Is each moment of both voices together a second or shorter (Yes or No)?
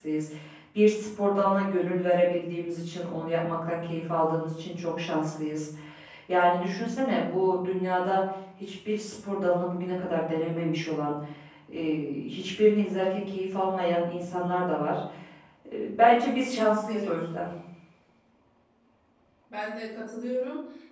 Yes